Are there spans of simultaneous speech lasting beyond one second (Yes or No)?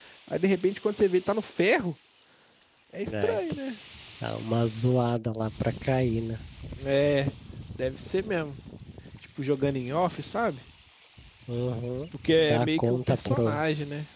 Yes